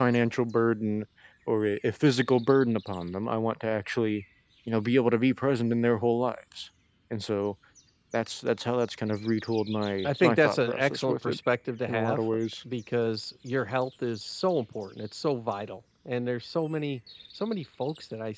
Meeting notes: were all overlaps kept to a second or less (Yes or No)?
No